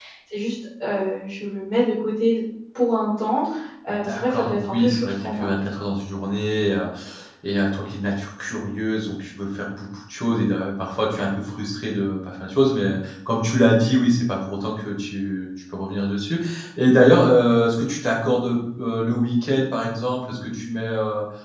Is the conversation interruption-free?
No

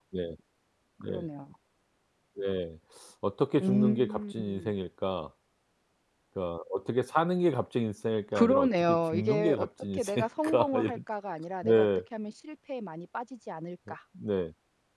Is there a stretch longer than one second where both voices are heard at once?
Yes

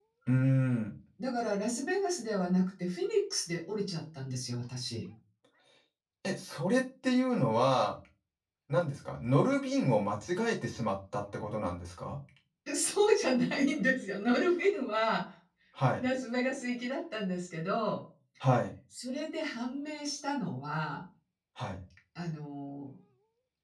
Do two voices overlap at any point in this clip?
No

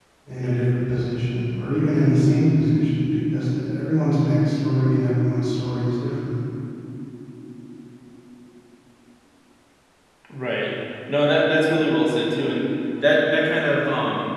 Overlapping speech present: No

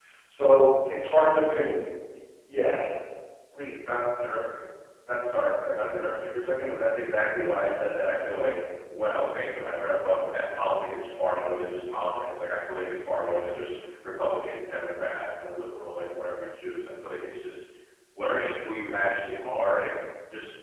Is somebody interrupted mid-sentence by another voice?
No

